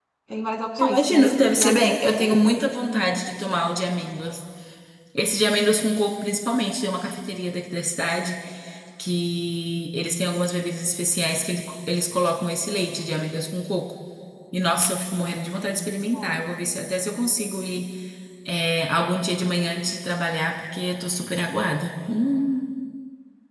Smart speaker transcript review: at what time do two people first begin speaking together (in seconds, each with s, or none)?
0.8 s